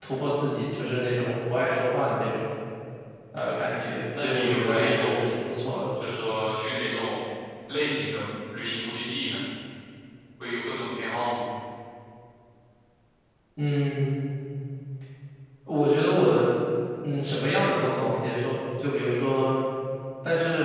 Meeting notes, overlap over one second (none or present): present